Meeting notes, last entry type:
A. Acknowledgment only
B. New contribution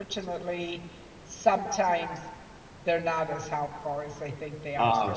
A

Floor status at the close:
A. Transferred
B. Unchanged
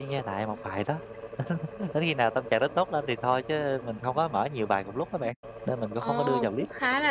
A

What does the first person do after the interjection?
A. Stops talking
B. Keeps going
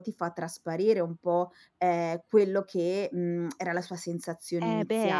A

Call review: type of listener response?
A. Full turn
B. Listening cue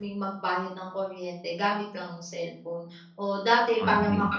B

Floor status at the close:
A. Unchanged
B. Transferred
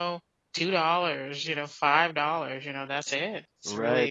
B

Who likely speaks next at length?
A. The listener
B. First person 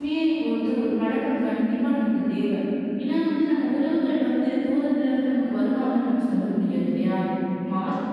B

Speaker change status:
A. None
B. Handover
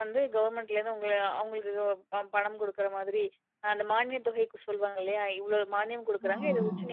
A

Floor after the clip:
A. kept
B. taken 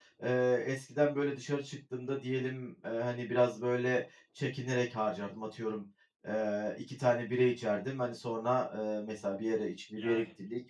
A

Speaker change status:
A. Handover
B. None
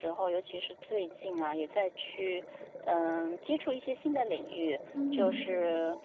B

